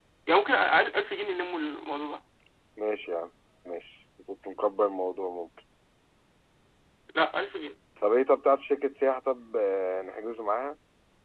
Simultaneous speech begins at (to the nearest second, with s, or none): none